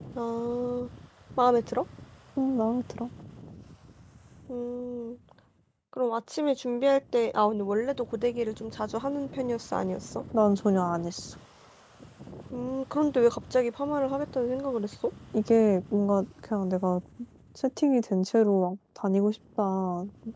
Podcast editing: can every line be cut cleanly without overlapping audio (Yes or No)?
Yes